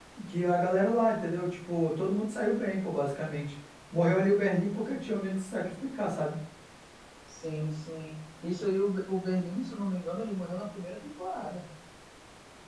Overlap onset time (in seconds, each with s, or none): none